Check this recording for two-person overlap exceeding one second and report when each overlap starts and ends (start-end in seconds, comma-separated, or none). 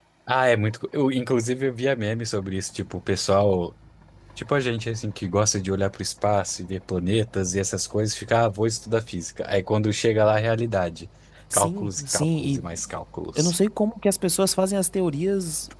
11.5-12.8